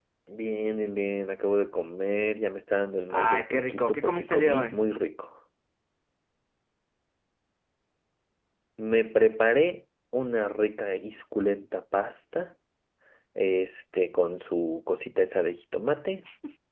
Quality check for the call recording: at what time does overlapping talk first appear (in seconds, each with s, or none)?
3.1 s